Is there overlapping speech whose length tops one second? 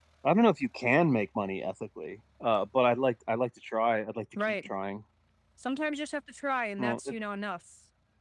No

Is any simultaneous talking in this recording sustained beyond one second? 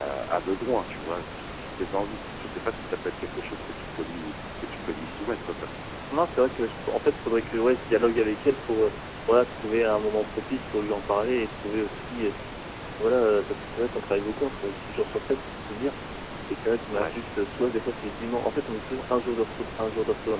No

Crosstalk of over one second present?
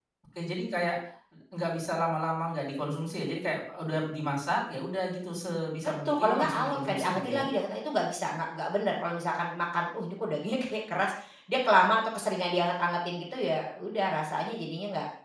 Yes, from 6.0 s

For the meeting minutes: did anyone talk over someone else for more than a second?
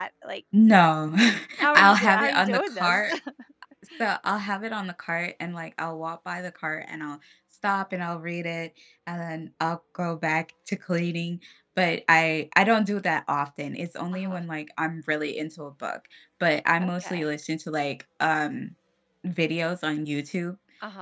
Yes, from 1.8 s

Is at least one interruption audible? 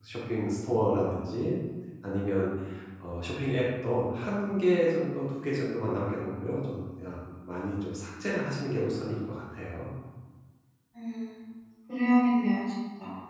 No

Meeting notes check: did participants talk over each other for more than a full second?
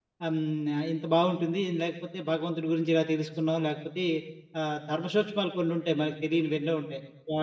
No

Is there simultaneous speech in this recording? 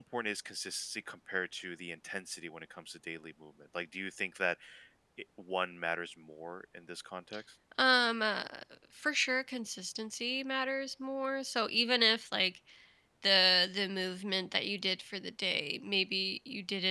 No

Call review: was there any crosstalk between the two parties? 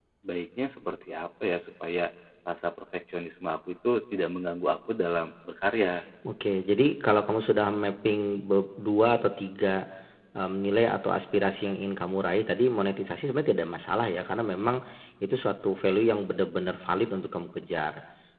No

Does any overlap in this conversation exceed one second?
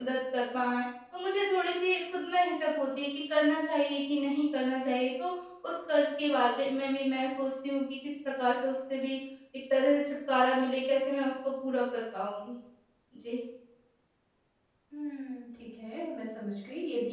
No

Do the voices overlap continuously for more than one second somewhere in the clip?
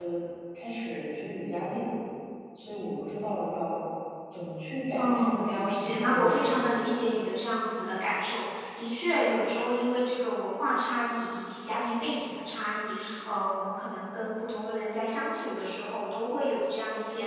Yes, from 5.0 s

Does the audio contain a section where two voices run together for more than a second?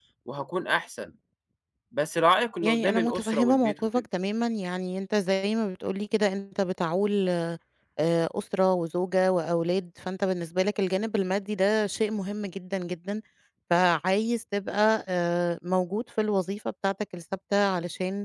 Yes, from 2.6 s

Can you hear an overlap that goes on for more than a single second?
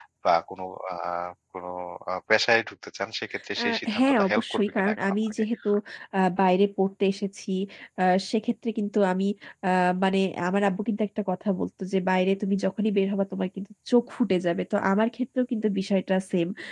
Yes, from 3.6 s

